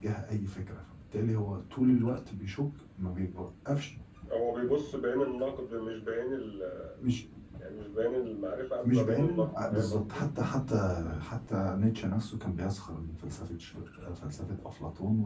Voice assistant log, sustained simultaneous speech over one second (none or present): present